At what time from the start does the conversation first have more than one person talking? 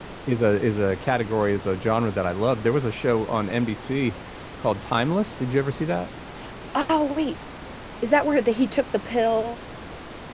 none

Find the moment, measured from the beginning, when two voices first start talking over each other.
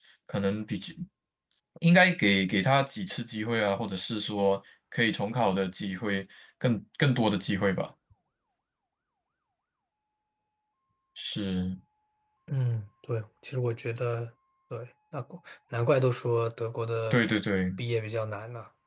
none

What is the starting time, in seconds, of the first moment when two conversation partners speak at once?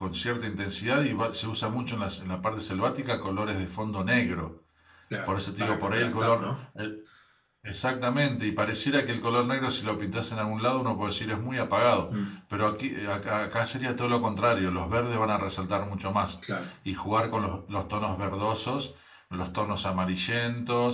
5.3 s

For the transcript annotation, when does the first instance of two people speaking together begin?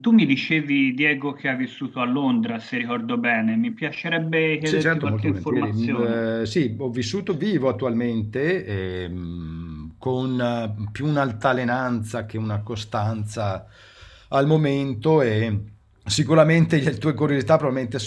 4.6 s

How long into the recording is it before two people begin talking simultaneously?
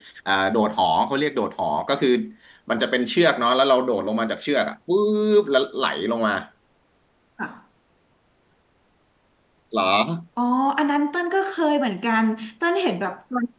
none

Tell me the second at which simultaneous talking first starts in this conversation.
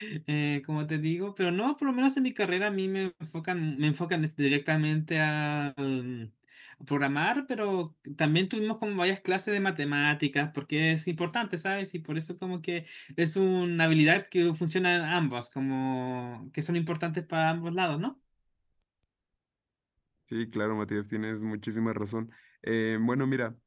none

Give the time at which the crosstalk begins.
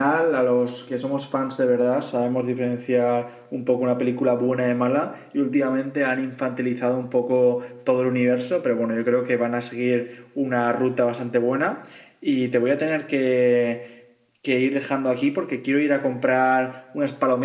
none

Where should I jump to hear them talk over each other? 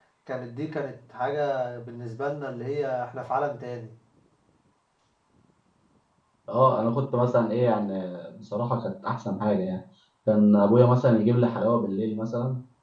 none

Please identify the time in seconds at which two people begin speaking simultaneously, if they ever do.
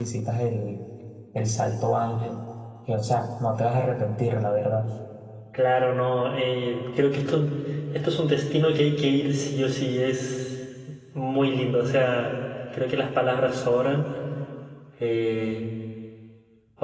none

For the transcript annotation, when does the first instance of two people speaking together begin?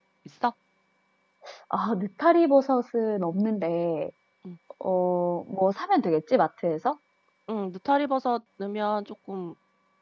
none

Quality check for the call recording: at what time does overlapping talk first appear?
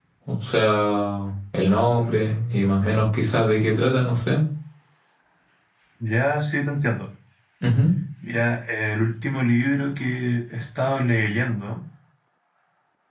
none

